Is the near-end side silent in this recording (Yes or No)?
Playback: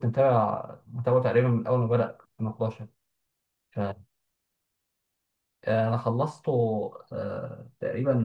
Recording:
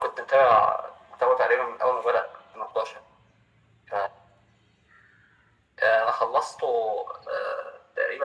Yes